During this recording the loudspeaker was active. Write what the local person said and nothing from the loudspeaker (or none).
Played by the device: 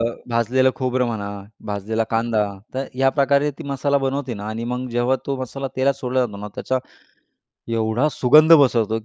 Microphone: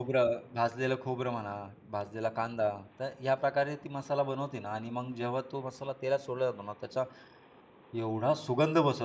none